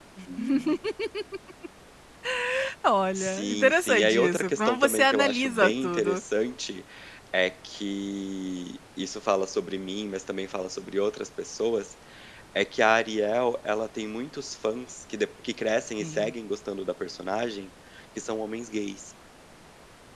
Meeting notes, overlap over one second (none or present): present